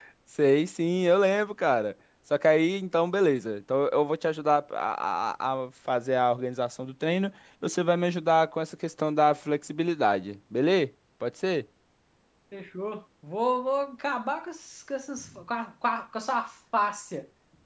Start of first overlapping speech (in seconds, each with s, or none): none